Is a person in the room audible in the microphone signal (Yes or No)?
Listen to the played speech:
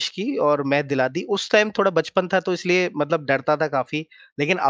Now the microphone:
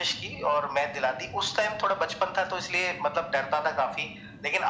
No